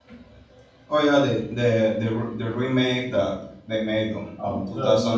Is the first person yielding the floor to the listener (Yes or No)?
Yes